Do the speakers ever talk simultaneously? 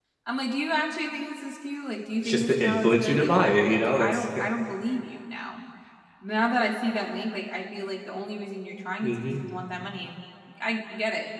Yes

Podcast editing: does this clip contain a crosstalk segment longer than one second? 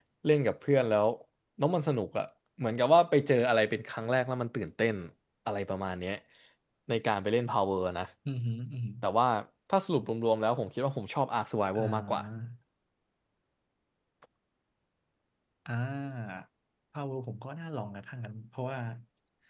No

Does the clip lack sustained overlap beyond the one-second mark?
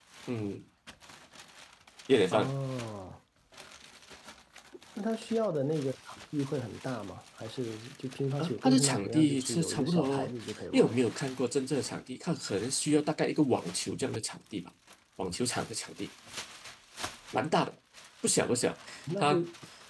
No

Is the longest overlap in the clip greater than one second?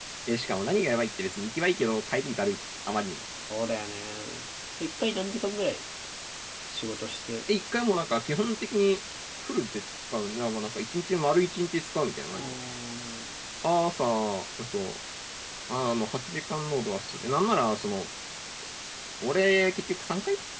No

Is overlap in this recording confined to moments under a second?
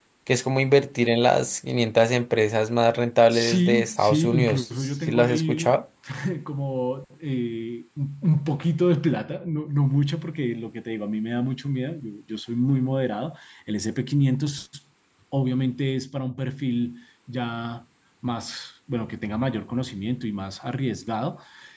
No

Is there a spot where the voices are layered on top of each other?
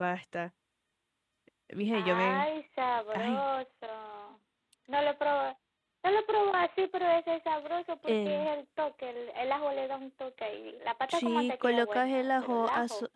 Yes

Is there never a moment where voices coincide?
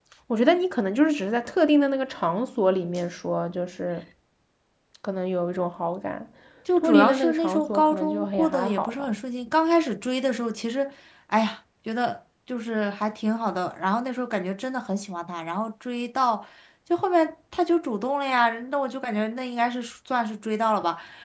No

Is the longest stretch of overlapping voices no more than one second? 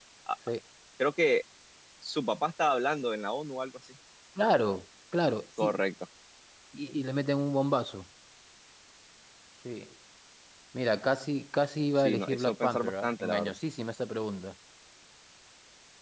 No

